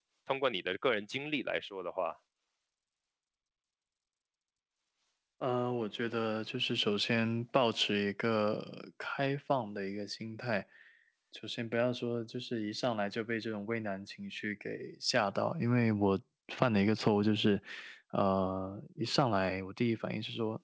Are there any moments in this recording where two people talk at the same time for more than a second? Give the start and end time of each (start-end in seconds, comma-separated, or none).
none